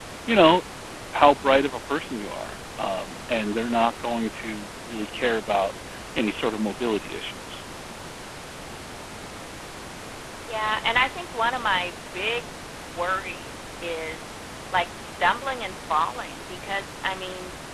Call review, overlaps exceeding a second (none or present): none